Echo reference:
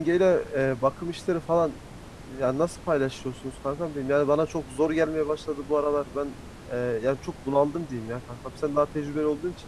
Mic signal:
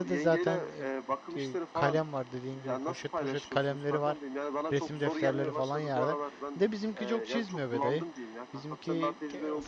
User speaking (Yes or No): Yes